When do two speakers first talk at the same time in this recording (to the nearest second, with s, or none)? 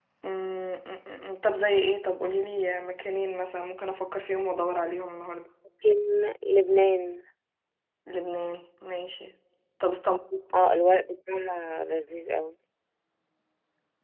none